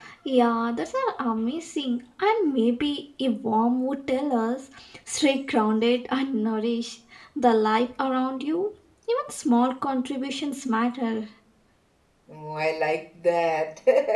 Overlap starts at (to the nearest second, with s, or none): none